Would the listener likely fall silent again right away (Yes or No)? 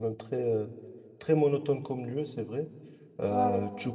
Yes